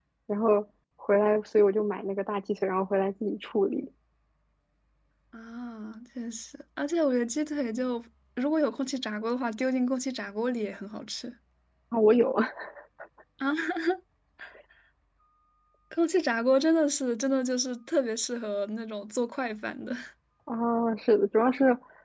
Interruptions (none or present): none